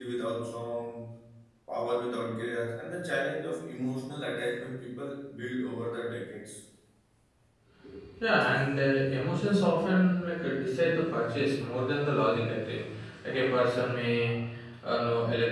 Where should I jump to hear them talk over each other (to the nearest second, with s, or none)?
none